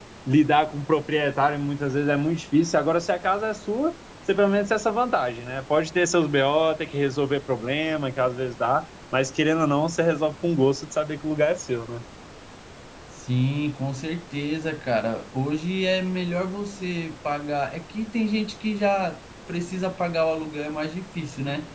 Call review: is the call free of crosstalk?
Yes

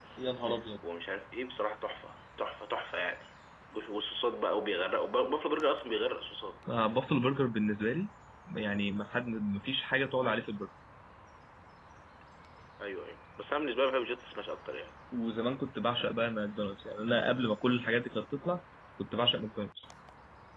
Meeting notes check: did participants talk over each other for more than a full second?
No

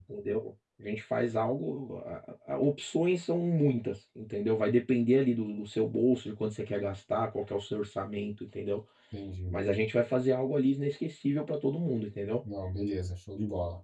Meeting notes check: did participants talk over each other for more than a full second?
No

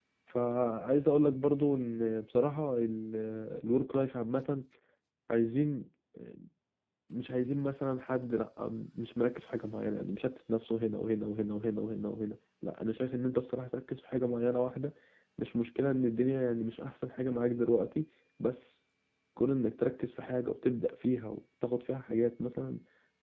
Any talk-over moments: No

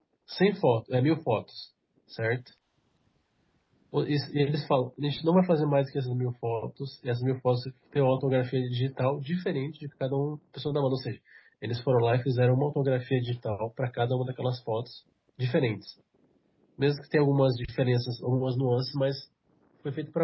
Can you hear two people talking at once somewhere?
No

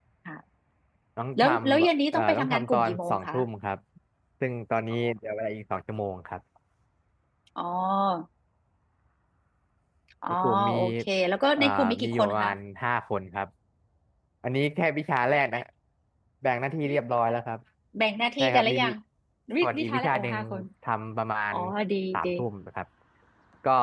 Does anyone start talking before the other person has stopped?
Yes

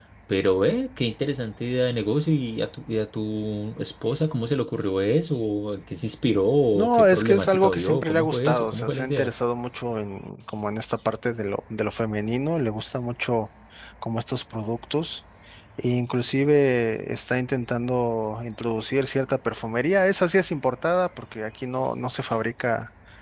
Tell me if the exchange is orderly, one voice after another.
No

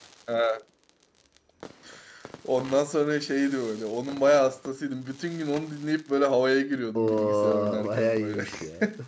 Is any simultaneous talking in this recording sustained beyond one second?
Yes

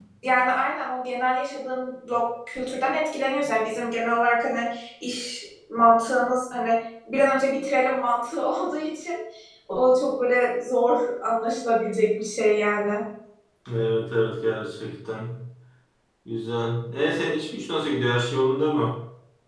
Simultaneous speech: No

